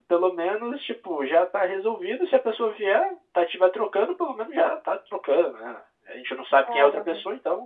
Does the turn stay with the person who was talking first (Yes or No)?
Yes